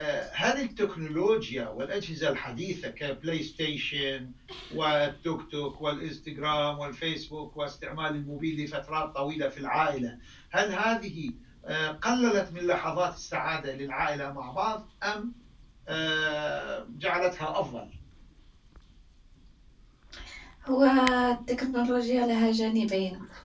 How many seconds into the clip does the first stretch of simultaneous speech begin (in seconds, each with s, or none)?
none